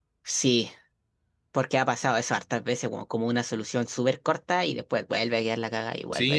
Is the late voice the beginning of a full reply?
Yes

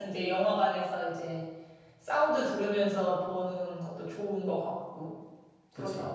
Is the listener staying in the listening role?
No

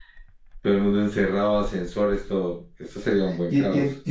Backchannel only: No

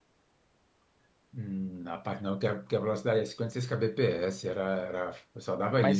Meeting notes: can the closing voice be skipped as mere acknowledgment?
No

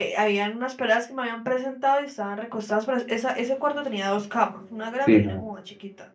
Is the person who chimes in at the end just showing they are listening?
Yes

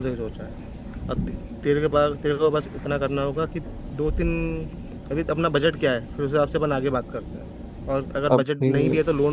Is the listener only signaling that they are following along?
Yes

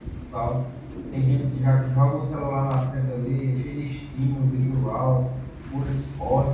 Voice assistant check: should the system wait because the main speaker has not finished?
Yes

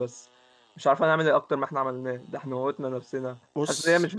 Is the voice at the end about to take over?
No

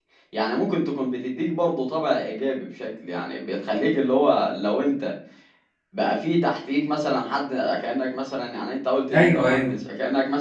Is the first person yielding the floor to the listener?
No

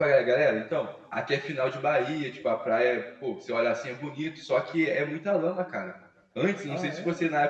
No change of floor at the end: Yes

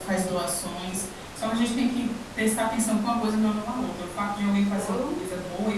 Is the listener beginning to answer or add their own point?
No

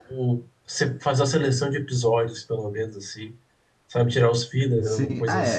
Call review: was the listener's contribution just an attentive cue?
No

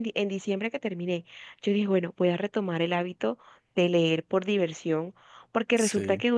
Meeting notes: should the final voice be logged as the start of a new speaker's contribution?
No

